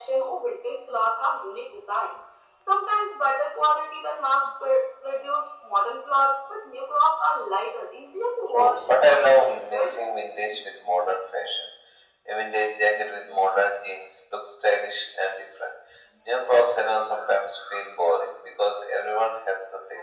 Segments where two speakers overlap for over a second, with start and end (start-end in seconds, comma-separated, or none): 8.5-10.0